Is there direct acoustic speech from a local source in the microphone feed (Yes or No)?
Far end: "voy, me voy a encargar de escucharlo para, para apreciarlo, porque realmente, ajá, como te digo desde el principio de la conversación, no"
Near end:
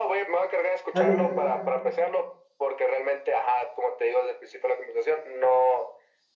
Yes